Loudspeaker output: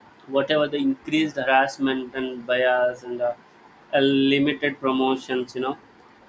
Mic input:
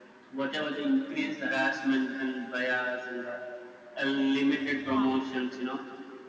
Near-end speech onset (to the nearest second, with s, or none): 5 s